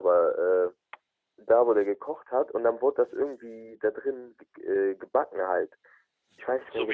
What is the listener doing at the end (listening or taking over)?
taking over